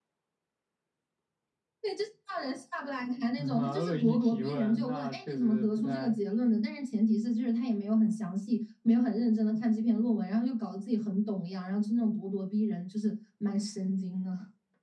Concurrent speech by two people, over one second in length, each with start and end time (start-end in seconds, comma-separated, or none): 3.4-6.2